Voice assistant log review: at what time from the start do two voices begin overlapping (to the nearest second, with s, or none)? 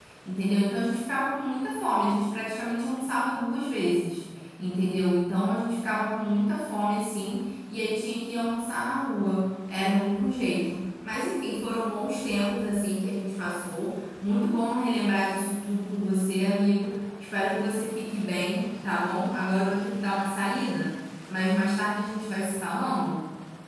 none